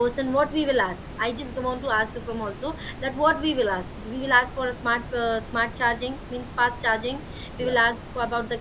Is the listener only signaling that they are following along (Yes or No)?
Yes